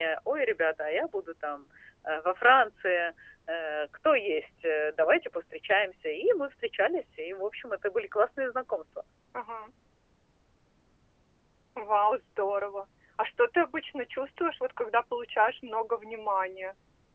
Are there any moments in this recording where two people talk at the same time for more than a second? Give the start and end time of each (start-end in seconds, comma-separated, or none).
none